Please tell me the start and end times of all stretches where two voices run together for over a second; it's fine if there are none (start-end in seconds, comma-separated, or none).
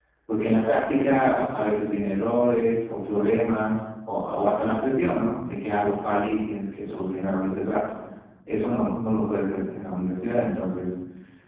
none